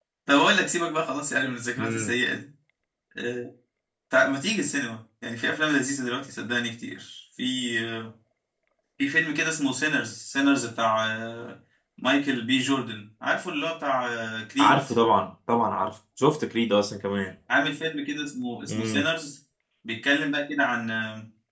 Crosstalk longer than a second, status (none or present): none